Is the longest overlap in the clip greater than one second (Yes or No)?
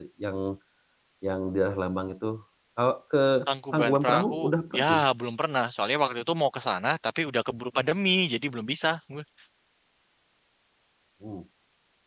Yes